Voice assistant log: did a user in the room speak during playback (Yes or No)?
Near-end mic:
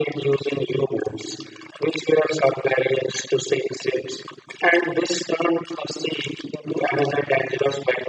No